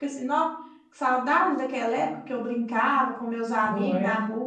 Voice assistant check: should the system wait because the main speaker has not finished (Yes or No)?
Yes